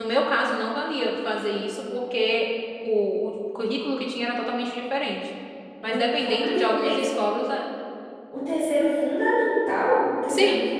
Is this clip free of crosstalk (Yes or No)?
No